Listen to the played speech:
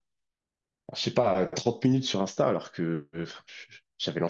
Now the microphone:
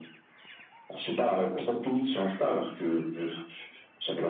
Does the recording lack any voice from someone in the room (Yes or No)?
Yes